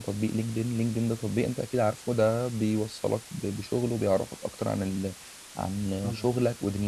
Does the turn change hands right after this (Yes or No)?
No